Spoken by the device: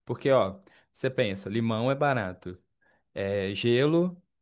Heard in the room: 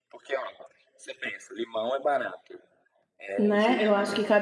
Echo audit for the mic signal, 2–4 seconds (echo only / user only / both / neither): both